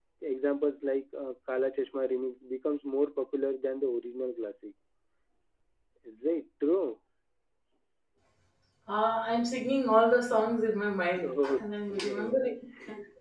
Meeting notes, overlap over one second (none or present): none